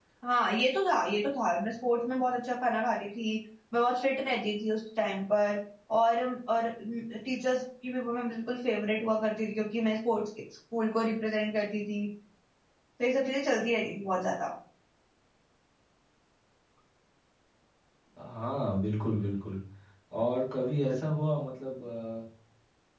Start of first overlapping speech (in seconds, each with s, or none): none